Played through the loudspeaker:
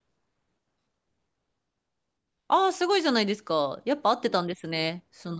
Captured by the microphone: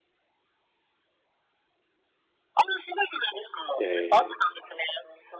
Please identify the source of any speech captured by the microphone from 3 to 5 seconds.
both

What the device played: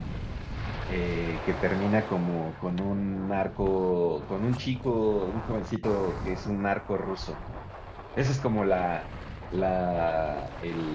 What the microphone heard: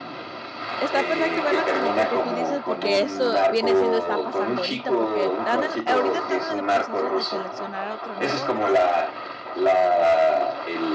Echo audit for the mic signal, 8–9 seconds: both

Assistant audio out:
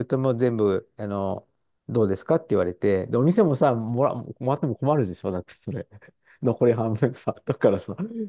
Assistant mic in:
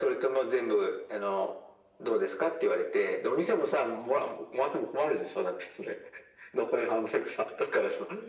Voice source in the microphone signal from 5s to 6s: echo only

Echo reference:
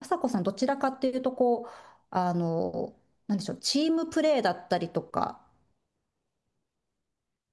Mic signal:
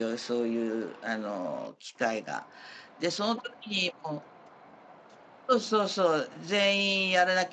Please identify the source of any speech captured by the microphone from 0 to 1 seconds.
user only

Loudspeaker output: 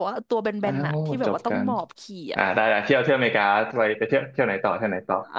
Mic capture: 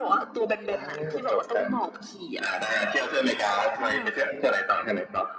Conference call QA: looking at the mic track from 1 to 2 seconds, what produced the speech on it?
echo only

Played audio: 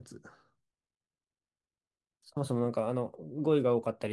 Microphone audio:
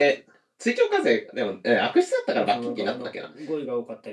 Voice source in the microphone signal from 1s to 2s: user only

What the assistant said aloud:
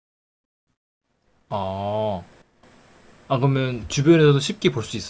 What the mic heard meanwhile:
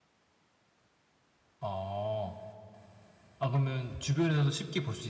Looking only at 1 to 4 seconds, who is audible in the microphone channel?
echo only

